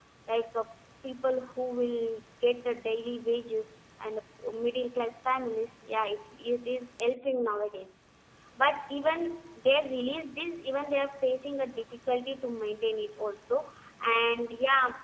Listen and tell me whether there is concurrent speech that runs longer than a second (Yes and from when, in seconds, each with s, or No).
No